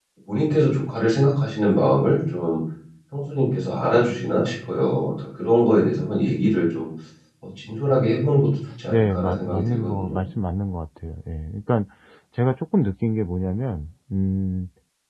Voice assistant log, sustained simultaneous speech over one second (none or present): present